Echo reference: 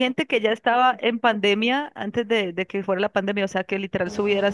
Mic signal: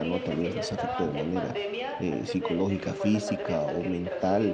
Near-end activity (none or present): present